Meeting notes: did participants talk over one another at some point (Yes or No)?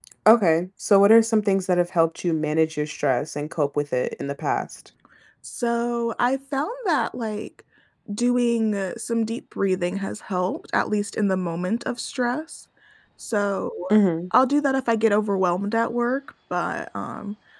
No